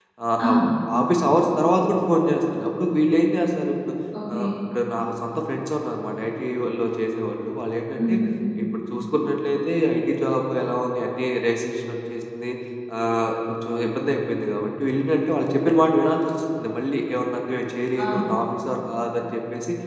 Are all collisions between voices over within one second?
Yes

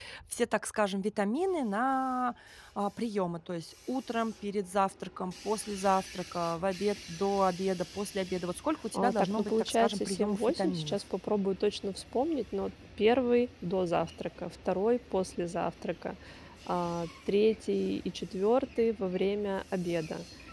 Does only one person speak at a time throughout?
No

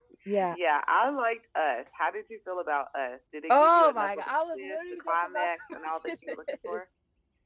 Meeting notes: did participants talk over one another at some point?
Yes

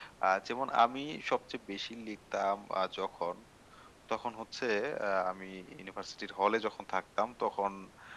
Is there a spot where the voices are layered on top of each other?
No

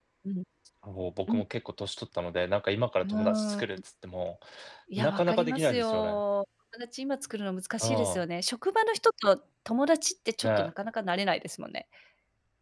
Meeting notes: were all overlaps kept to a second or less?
No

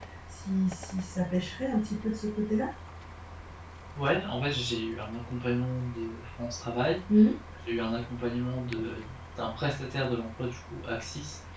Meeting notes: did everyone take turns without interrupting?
Yes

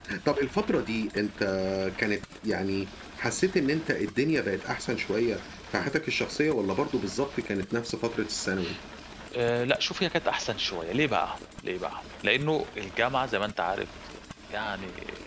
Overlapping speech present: No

